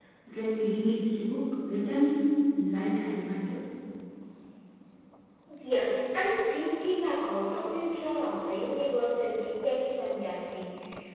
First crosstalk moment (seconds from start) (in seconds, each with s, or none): none